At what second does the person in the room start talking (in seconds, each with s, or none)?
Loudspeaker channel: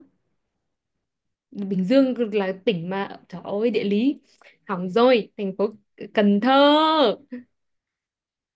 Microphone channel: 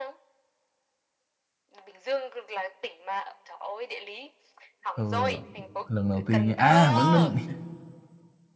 5.0 s